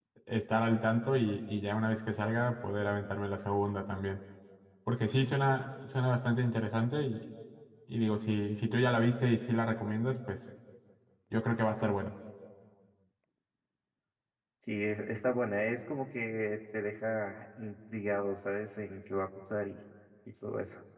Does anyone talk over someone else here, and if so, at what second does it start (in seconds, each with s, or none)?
none